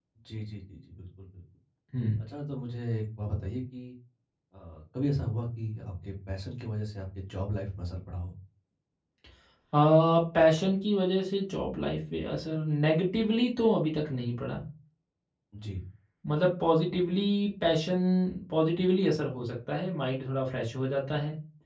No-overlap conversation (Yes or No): Yes